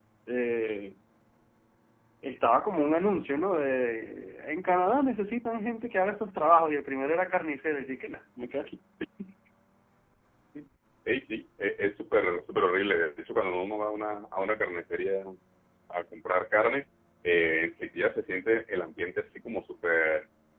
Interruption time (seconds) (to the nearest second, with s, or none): none